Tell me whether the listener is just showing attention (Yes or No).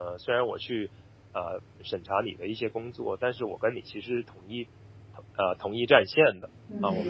Yes